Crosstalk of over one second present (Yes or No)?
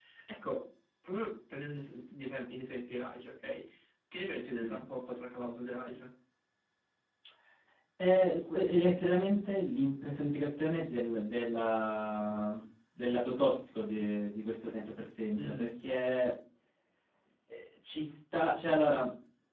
No